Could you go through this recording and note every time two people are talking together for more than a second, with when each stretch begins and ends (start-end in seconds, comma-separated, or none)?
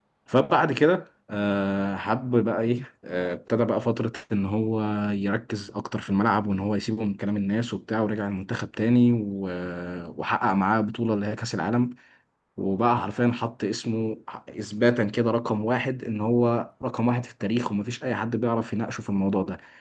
none